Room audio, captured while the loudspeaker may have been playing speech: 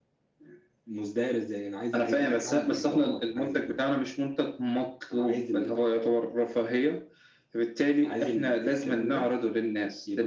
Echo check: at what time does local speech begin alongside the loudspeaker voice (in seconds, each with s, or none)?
none